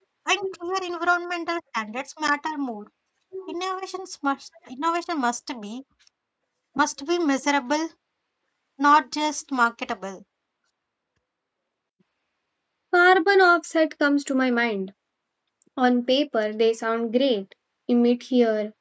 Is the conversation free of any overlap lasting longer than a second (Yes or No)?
Yes